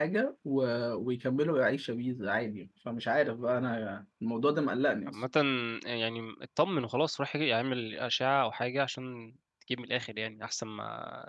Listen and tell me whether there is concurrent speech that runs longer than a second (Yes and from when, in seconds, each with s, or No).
No